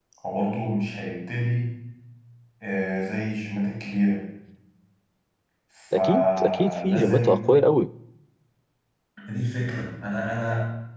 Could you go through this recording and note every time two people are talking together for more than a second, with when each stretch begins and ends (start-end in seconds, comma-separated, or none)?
5.9-7.4